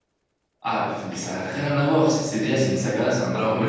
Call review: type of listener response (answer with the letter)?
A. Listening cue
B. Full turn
B